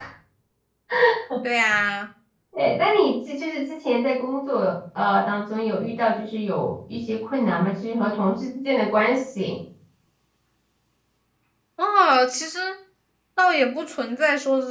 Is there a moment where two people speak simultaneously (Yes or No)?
No